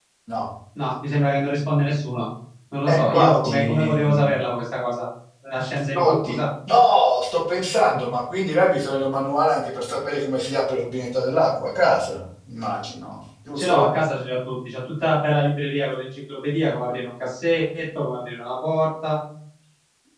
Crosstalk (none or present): present